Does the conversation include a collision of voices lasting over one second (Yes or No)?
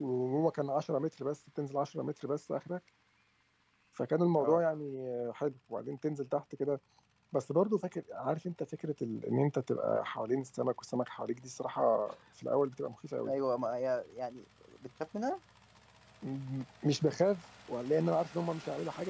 No